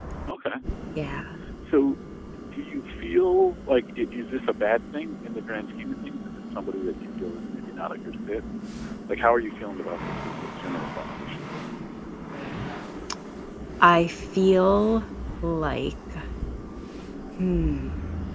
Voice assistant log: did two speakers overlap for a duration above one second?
No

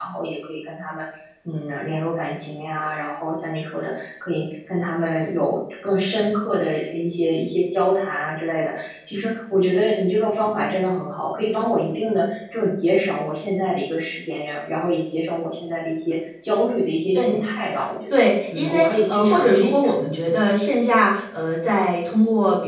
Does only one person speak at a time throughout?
No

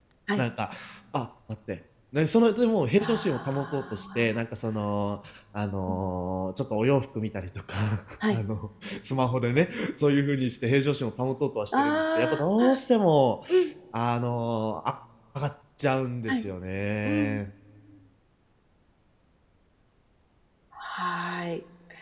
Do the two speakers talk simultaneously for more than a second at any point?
Yes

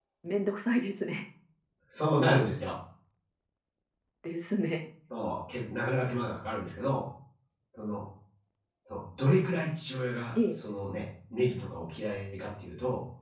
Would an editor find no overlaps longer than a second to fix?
Yes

